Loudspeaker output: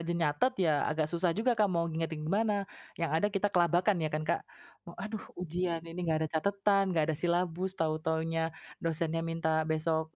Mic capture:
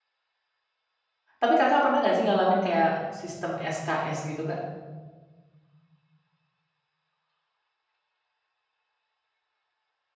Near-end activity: present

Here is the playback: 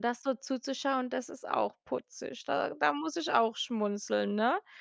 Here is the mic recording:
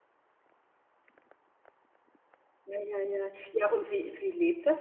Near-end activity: present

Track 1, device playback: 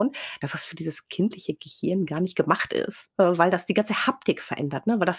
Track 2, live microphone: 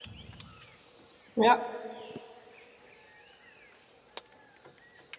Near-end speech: present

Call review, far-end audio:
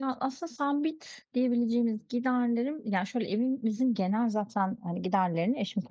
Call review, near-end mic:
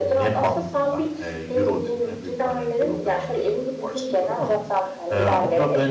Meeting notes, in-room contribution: present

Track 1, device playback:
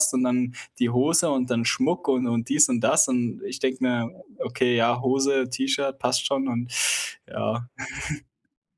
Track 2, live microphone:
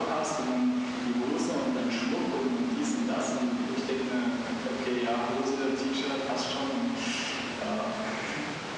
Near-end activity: none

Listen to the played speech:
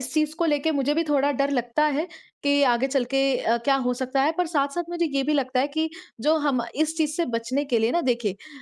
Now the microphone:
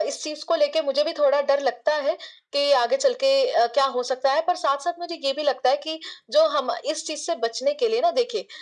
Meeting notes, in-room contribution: none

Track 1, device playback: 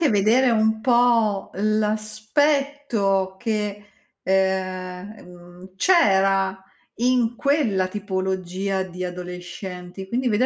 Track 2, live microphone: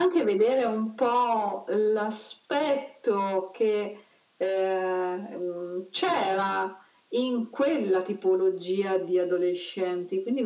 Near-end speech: none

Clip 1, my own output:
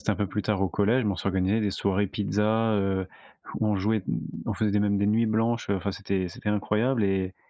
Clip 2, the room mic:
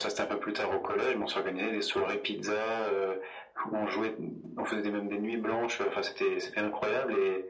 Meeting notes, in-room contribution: none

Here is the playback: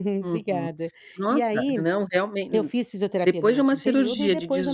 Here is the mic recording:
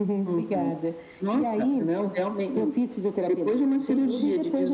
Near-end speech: none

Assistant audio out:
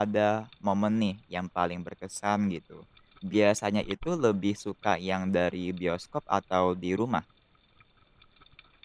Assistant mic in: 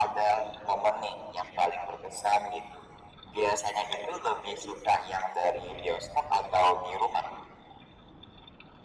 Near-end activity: none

